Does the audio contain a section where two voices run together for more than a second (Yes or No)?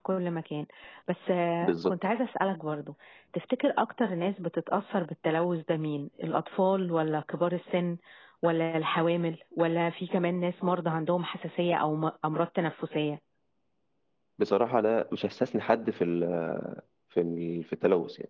No